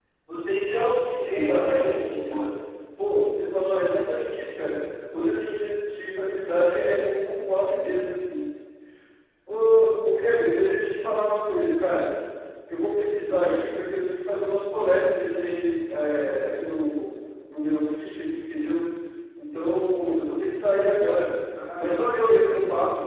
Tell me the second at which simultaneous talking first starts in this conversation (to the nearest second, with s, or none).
1 s